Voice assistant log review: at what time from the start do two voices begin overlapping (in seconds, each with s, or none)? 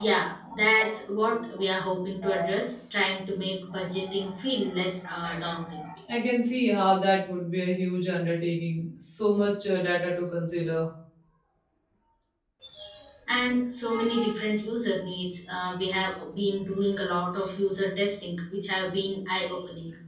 none